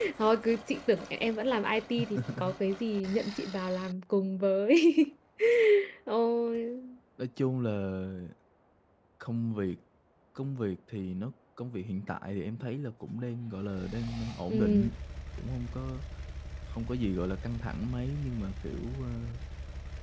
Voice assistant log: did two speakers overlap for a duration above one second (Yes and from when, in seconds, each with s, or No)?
No